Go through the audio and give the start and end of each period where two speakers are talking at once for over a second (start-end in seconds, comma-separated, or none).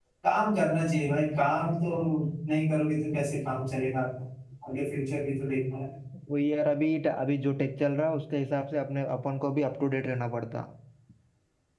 none